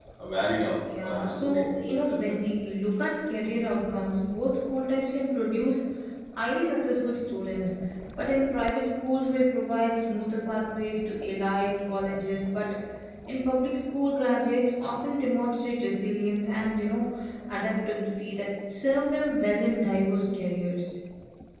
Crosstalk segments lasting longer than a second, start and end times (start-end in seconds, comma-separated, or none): 1.0-2.4